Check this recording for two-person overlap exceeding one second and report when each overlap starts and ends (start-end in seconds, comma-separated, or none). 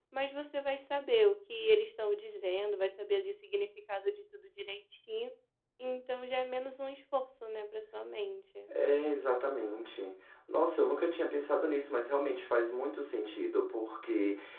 none